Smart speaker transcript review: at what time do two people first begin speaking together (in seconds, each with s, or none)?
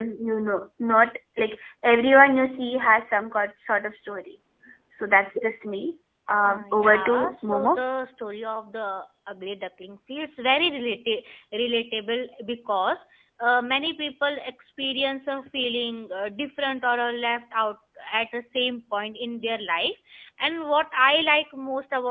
6.4 s